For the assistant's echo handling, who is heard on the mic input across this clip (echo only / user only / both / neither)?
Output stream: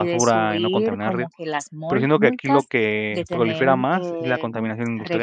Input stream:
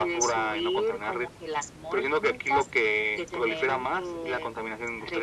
echo only